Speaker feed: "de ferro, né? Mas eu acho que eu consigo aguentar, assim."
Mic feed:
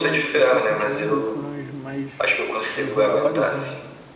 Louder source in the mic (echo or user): echo